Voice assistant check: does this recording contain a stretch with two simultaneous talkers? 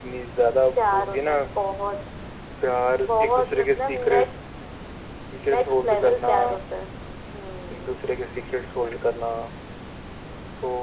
Yes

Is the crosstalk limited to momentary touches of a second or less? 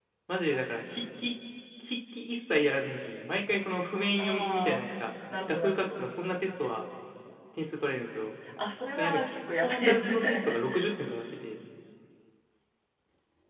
No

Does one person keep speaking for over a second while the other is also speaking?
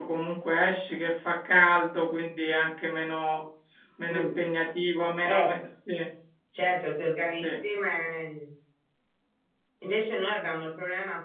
No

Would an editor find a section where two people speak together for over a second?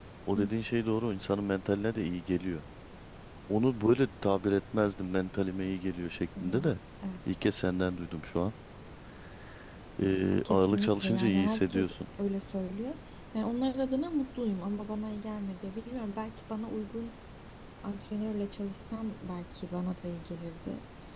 Yes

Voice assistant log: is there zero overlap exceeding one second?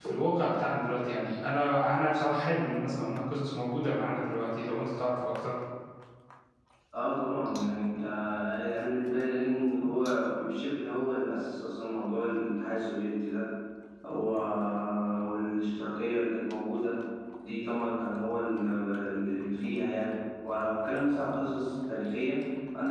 Yes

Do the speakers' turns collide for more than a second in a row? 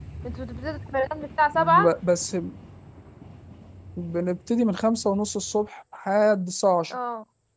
No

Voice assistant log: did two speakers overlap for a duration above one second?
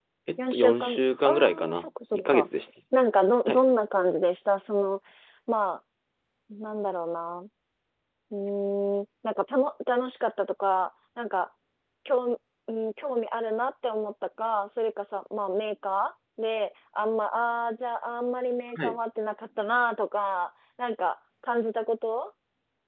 Yes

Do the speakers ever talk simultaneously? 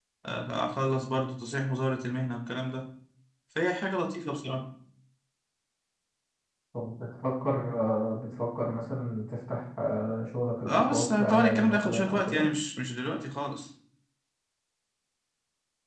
Yes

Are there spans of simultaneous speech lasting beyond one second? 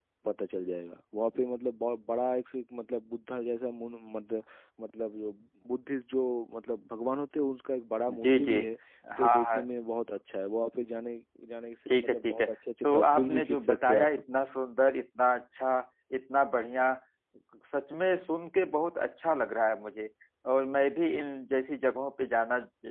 Yes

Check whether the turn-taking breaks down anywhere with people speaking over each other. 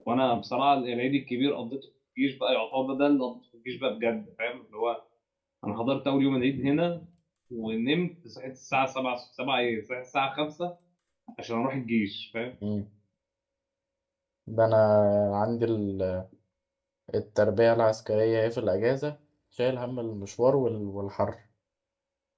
No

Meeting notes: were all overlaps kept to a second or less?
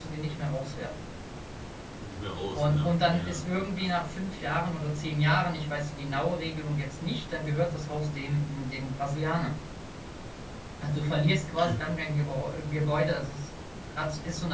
No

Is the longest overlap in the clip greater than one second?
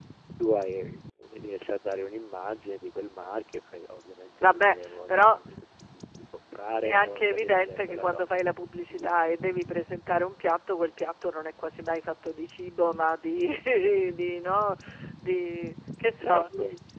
Yes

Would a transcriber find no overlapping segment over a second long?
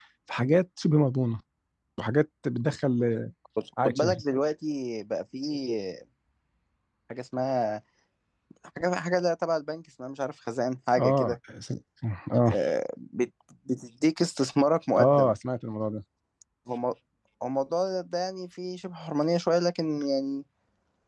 Yes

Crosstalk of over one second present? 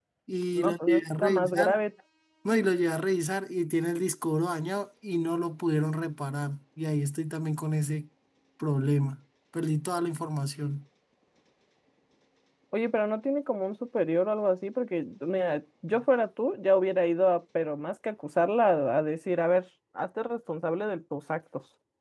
Yes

